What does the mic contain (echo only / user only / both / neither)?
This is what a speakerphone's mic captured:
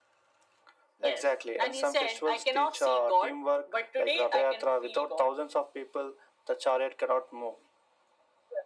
echo only